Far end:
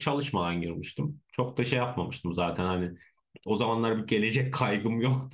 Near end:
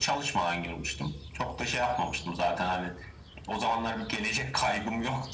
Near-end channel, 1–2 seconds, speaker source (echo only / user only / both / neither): echo only